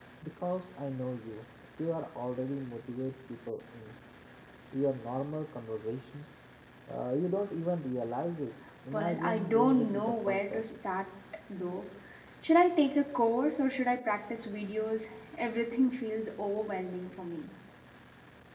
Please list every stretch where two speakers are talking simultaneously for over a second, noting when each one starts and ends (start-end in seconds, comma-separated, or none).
8.9-10.7